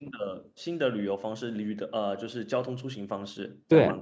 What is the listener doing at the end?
taking over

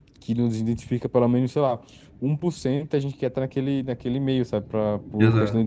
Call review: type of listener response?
listening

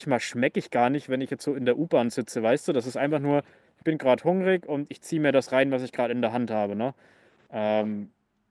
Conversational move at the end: listening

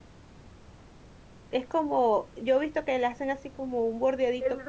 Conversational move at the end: taking over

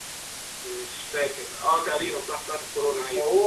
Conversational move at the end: taking over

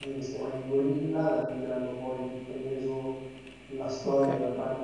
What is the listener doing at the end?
listening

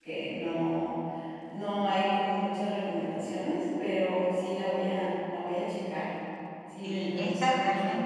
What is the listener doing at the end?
taking over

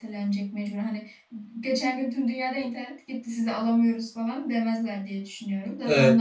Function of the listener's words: taking over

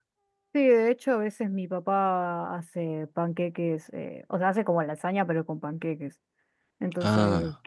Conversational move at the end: listening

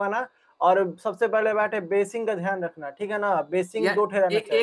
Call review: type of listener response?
taking over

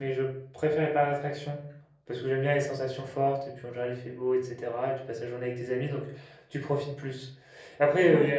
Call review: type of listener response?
listening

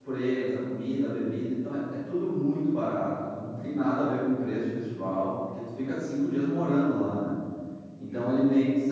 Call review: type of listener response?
listening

